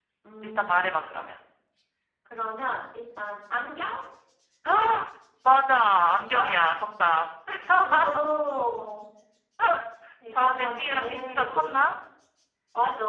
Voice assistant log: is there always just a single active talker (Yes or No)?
No